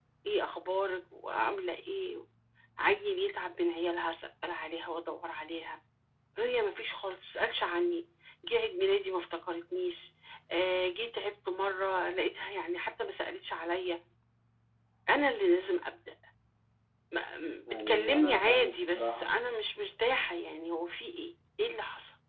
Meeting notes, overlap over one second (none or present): present